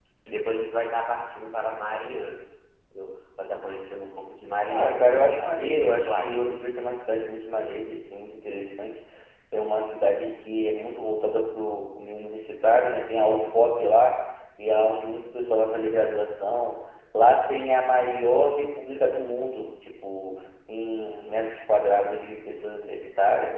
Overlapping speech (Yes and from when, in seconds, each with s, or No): Yes, from 4.7 s